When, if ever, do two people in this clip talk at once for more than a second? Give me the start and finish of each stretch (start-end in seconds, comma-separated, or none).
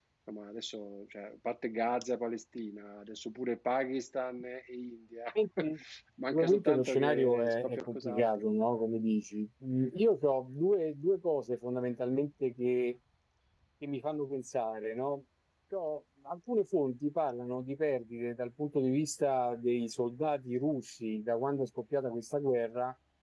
6.3-8.5